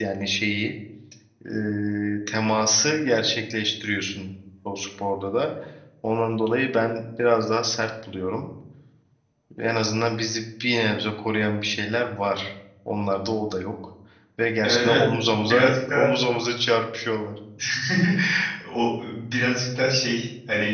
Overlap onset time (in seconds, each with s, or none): 14.6 s